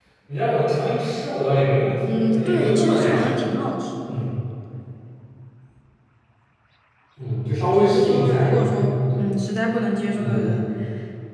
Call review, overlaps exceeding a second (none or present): present